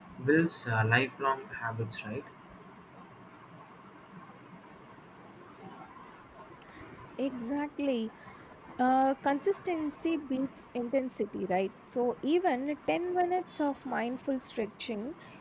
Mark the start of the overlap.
none

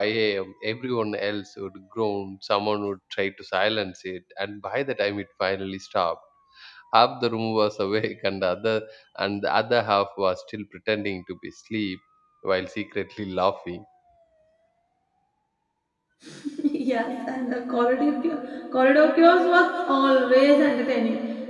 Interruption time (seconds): none

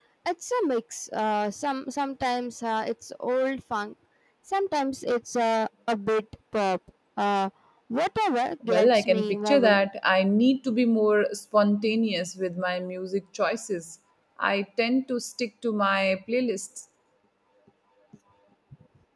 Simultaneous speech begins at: 8.7 s

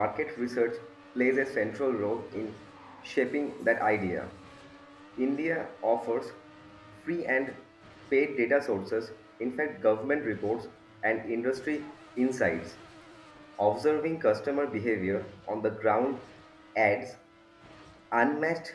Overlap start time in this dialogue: none

